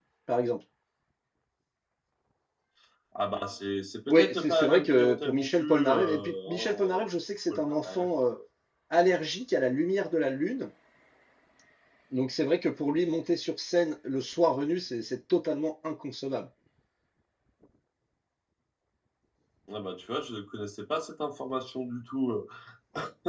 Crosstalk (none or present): present